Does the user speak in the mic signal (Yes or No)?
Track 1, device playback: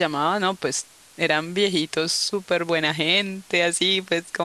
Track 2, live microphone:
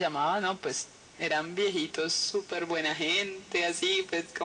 No